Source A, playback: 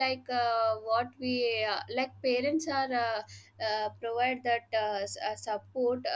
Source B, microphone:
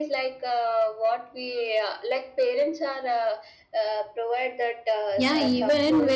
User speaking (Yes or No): Yes